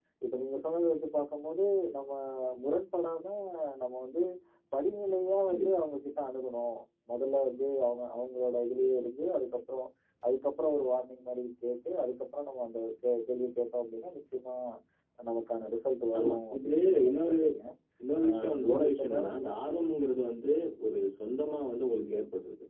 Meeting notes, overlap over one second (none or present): present